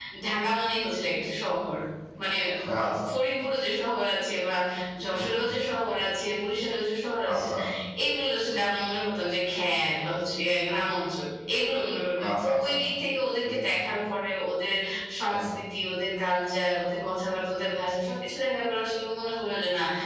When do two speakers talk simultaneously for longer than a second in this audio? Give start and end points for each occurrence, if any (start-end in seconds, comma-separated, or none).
none